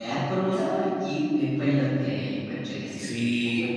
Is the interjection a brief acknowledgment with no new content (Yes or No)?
No